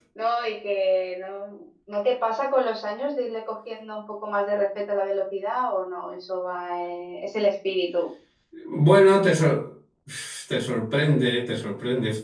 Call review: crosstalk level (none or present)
none